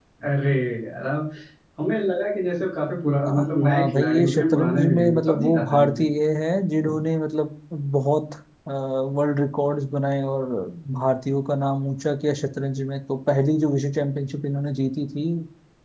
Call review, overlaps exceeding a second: present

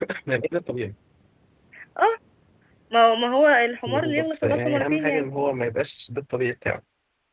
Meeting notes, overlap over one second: present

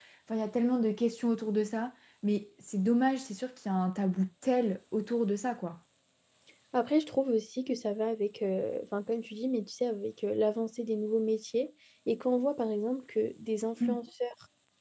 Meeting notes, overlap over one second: none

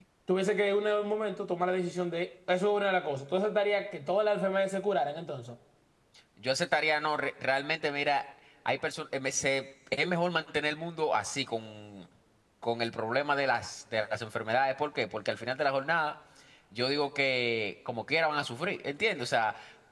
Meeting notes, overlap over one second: none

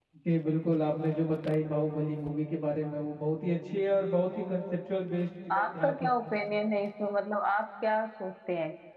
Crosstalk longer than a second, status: none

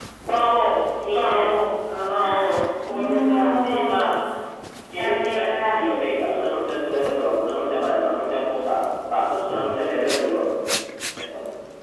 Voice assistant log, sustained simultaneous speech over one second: present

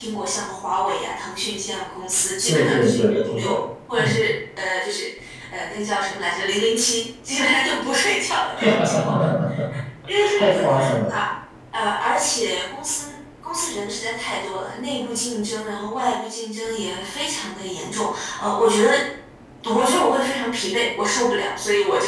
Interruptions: present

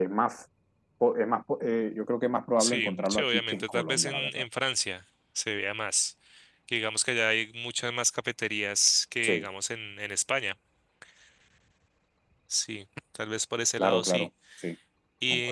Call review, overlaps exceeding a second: present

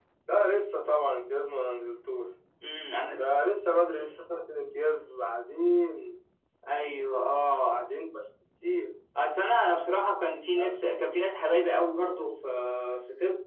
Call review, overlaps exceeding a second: none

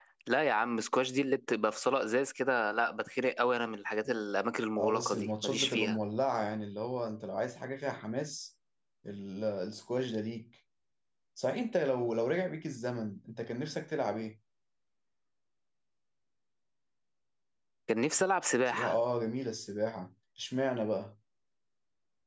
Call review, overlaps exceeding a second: present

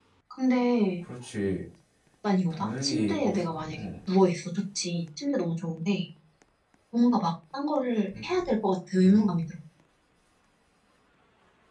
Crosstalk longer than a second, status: present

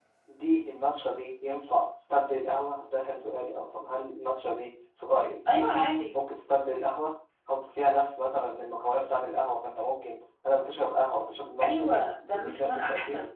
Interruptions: present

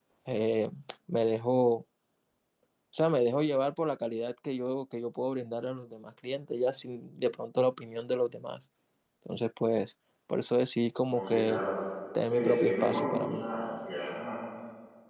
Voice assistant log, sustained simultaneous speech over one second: present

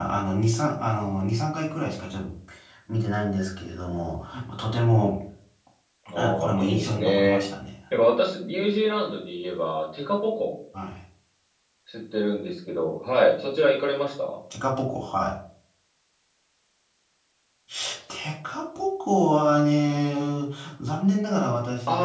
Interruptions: present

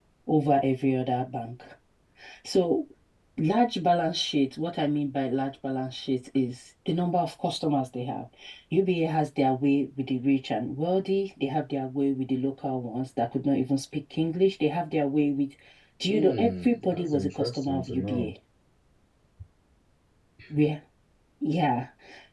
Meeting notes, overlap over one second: present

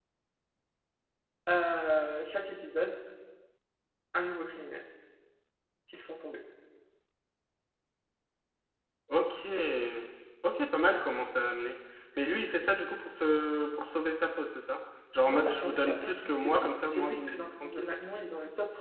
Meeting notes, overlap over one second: present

